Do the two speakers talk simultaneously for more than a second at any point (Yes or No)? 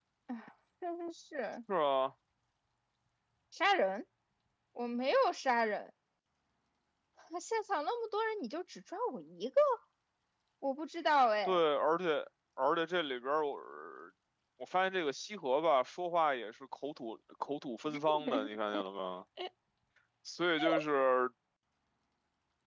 No